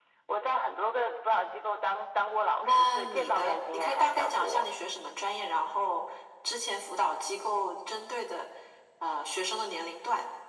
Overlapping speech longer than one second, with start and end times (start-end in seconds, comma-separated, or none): 2.6-4.6